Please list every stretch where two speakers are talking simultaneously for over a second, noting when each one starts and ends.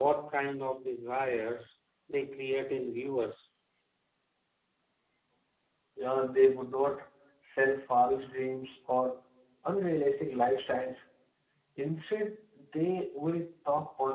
none

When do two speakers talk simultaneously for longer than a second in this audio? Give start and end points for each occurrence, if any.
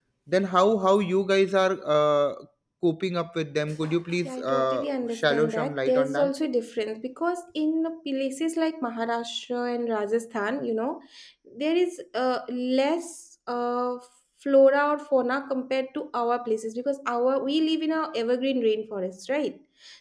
4.2-6.3

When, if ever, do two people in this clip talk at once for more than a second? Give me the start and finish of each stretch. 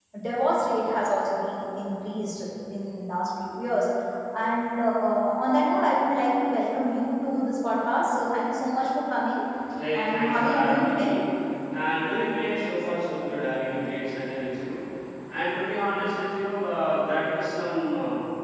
9.9-11.2

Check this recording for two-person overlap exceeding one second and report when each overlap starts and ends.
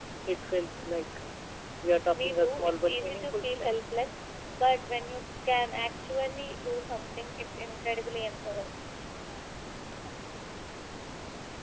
2.1-3.7

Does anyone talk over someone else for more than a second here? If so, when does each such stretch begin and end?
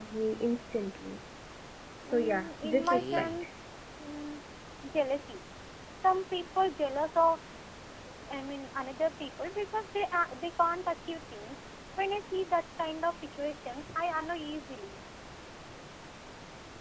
2.1-3.4

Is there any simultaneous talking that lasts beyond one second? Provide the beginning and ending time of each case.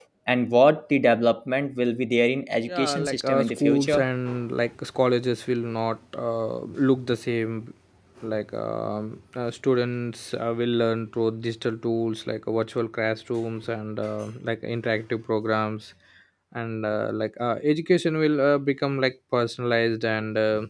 2.6-4.0

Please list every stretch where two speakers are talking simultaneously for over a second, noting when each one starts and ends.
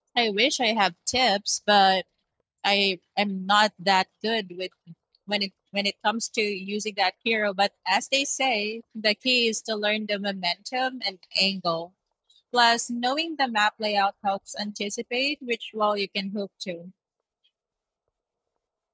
none

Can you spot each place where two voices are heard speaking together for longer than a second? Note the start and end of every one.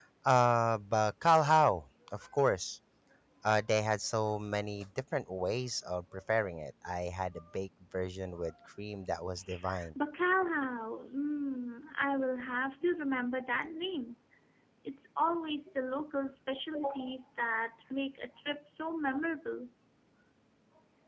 none

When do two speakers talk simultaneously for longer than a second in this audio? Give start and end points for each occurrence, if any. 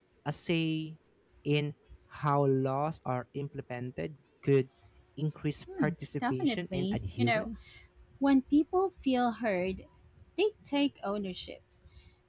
6.2-7.5

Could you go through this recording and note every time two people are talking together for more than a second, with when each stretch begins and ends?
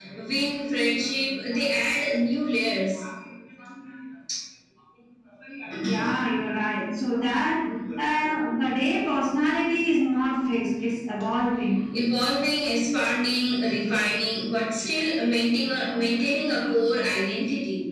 none

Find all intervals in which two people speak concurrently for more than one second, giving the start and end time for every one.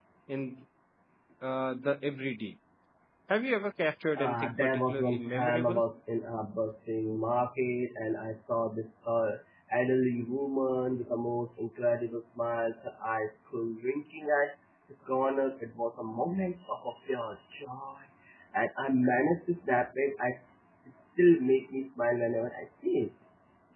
4.2-5.8

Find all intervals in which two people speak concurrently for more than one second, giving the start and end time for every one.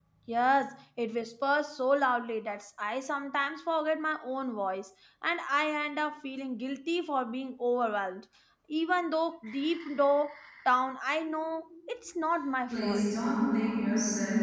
none

